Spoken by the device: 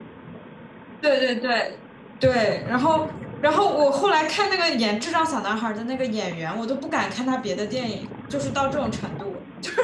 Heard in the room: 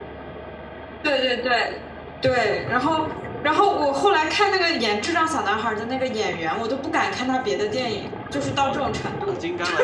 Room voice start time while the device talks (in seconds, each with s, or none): 8.5 s